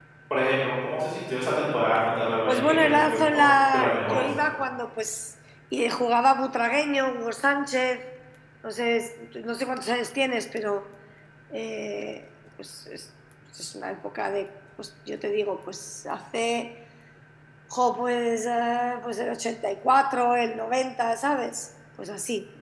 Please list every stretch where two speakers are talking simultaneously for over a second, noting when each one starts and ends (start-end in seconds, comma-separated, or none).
2.5-4.2